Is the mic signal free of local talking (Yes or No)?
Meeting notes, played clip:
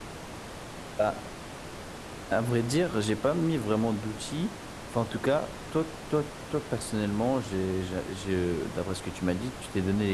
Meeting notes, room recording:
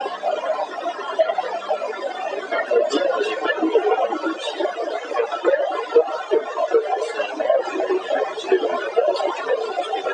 Yes